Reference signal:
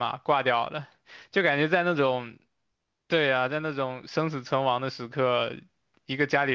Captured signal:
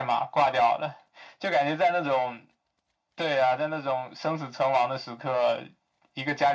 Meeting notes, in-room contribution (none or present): none